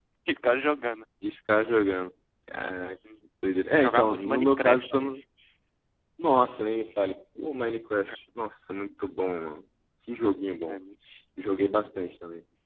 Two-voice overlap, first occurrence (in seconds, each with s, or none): 3.8 s